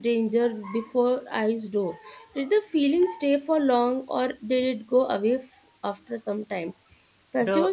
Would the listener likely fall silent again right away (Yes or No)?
Yes